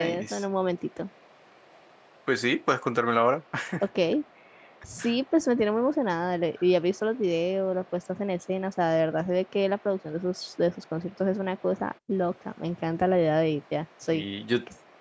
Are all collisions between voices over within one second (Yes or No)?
Yes